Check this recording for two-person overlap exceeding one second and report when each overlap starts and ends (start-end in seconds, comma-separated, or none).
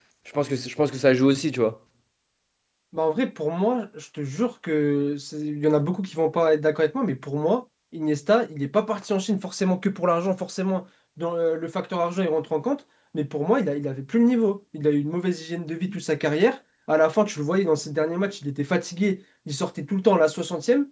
none